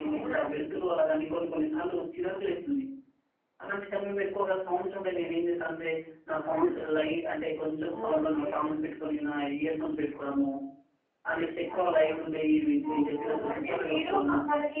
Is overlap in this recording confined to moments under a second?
No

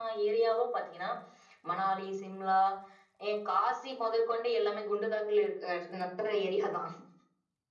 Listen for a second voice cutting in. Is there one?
No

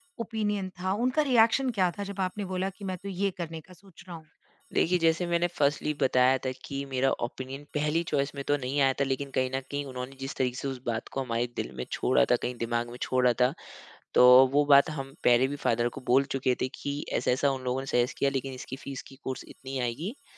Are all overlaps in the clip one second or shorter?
Yes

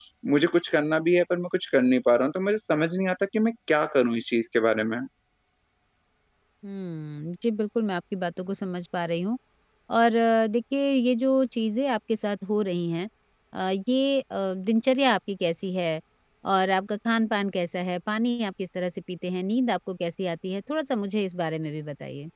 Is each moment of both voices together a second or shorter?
Yes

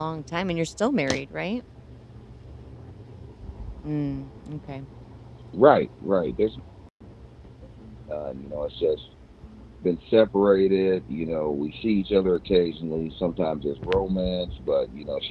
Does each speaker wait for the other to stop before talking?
Yes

